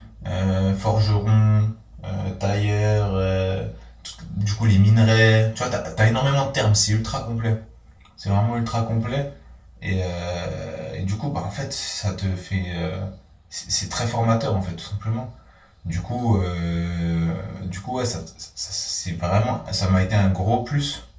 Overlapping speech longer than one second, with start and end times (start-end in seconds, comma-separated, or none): none